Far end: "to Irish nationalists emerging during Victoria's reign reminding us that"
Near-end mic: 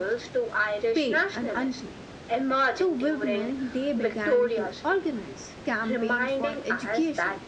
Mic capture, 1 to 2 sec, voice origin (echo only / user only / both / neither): both